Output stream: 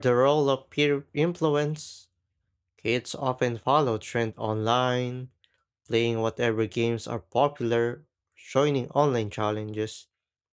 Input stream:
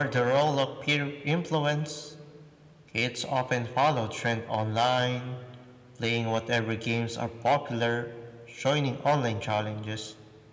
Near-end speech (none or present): none